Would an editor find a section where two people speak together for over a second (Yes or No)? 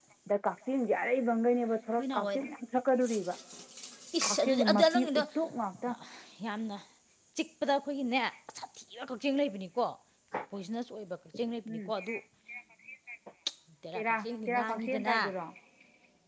Yes